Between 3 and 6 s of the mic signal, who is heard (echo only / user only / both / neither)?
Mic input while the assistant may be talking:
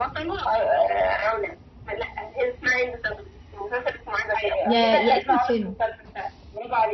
both